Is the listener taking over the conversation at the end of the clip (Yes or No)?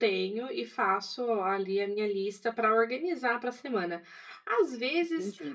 No